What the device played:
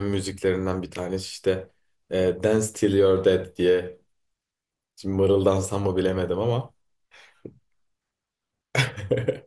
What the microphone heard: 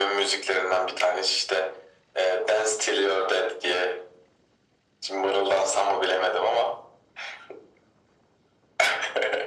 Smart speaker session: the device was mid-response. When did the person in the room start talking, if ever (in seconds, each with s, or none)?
none